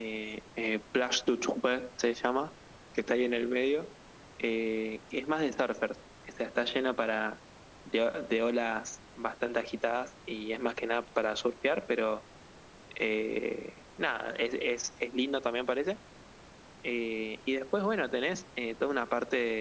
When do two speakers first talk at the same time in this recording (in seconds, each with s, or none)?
none